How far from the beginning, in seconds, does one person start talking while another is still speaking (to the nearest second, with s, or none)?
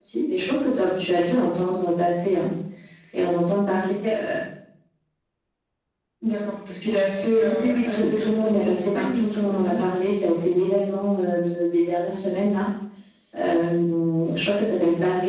7 s